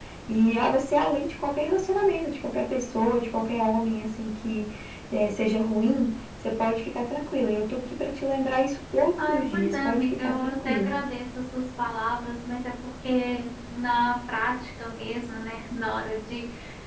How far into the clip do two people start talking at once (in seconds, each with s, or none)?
9.2 s